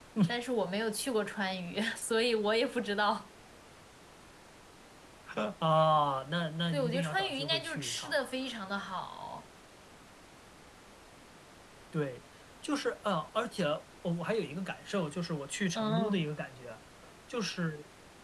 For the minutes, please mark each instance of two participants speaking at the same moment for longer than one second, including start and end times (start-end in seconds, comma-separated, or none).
6.7-8.1